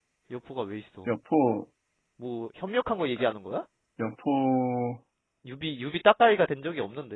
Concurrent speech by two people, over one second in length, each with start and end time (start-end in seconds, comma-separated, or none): none